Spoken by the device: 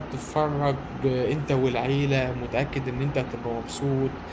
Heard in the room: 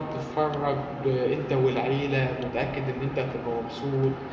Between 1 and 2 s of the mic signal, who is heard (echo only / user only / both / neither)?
echo only